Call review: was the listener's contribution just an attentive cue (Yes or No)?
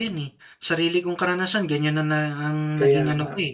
Yes